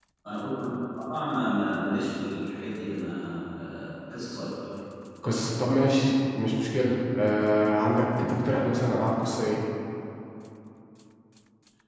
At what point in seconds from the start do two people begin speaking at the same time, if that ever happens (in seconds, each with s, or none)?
none